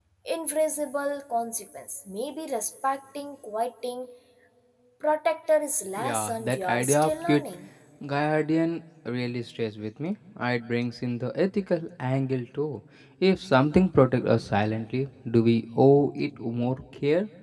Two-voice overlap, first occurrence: 6.0 s

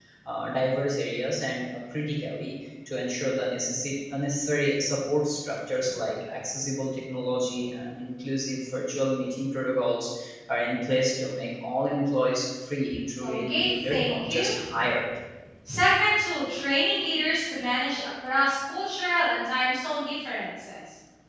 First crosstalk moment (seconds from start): 13.2 s

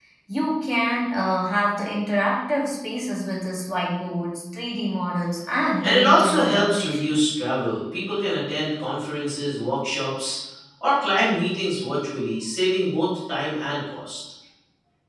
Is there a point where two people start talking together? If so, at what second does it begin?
5.8 s

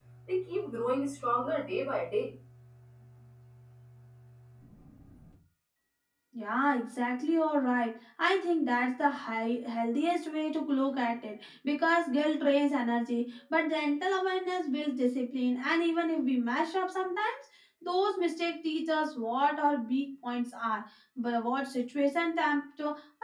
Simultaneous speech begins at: none

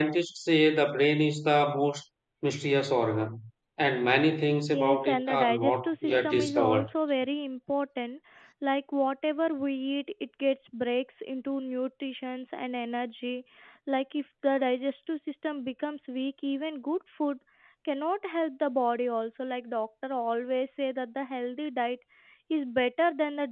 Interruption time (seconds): 4.7 s

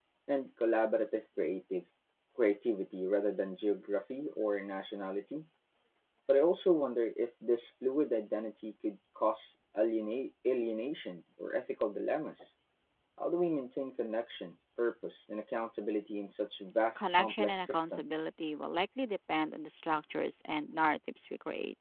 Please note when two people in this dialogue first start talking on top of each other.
16.9 s

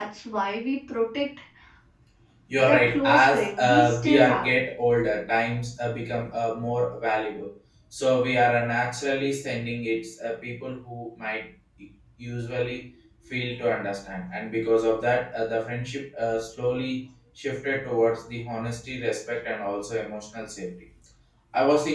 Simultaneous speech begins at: 2.6 s

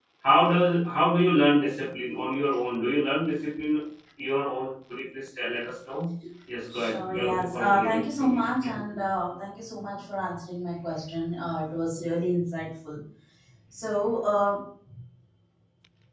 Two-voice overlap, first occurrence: 6.7 s

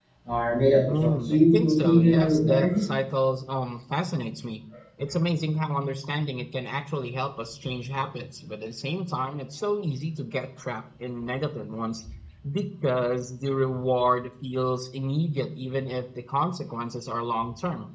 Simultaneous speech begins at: 0.8 s

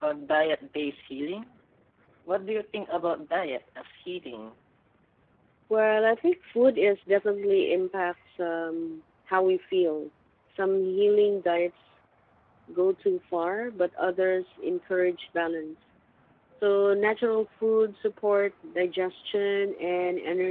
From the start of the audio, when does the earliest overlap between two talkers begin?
none

